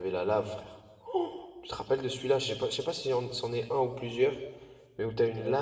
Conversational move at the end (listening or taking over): listening